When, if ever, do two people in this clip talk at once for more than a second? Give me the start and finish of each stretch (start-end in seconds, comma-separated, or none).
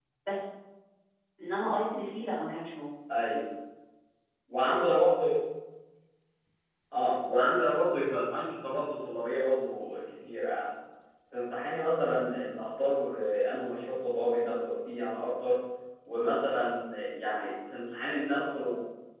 none